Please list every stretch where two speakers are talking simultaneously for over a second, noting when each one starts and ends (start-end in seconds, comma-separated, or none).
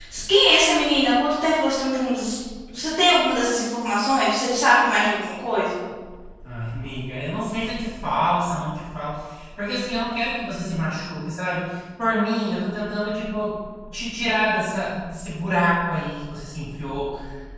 none